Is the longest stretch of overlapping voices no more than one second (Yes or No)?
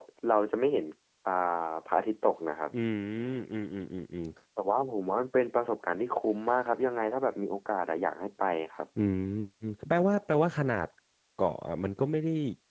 Yes